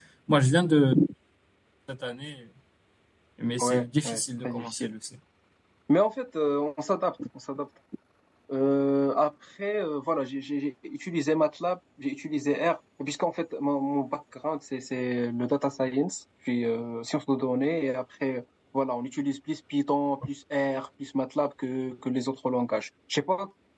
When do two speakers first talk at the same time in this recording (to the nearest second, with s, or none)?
4 s